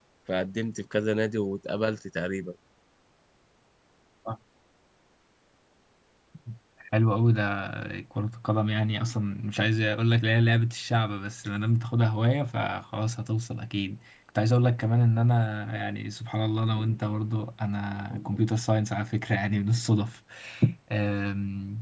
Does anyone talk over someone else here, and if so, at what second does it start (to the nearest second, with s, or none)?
none